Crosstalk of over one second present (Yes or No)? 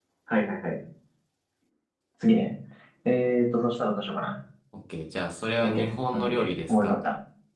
Yes